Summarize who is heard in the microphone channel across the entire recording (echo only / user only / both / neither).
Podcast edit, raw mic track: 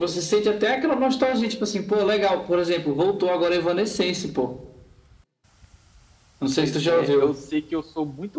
both